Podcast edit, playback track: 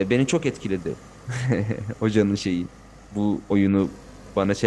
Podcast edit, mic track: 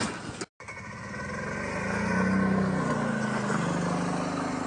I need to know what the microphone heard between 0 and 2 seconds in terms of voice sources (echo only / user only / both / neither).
neither